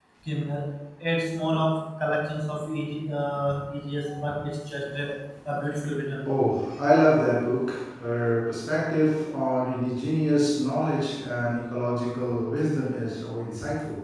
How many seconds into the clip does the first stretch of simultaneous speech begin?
none

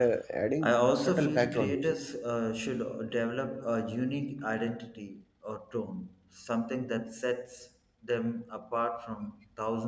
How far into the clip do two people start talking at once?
0.6 s

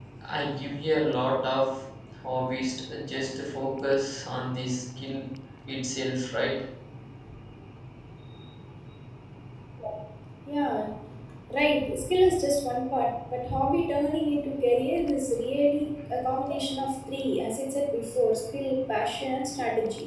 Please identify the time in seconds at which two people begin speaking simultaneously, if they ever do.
none

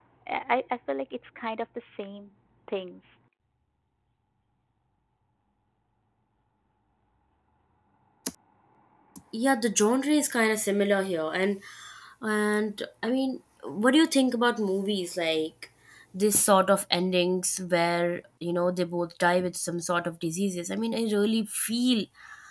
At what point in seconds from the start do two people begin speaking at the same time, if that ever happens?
none

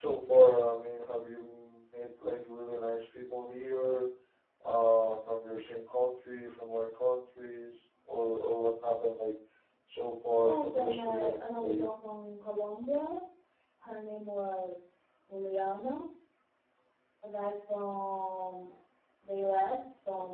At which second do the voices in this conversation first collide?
10.4 s

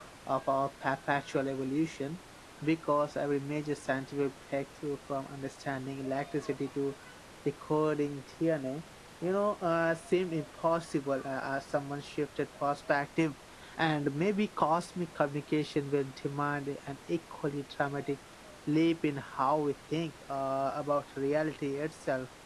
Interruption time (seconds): none

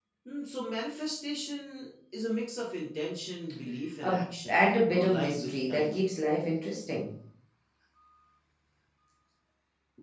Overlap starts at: 4.0 s

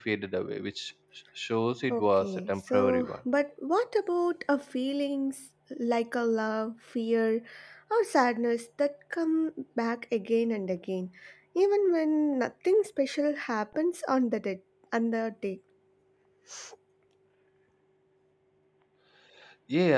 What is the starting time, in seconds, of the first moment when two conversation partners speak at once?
1.9 s

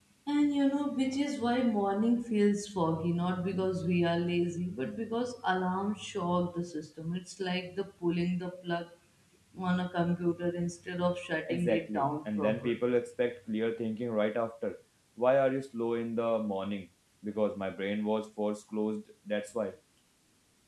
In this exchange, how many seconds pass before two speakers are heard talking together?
11.5 s

